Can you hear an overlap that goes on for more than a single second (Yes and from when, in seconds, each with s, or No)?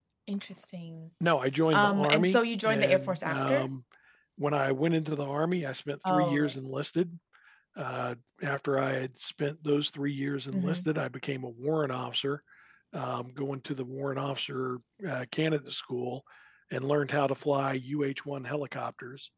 Yes, from 1.7 s